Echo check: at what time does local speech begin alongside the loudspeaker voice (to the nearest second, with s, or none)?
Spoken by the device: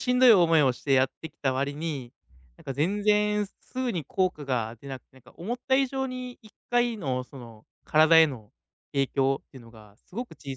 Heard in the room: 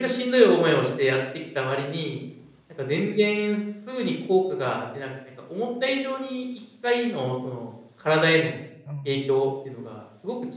9 s